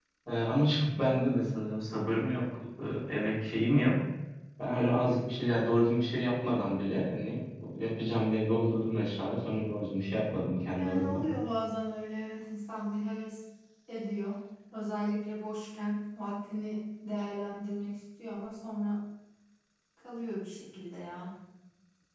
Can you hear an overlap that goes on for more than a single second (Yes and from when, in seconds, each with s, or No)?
No